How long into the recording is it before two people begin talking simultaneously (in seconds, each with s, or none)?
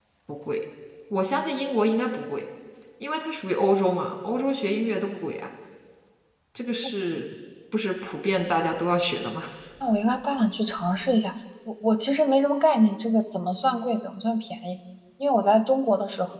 none